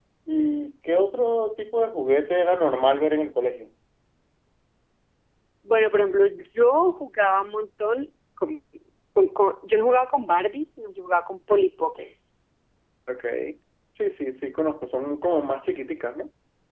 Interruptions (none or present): none